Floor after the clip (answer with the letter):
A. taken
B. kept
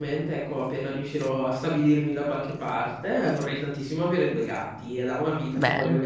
B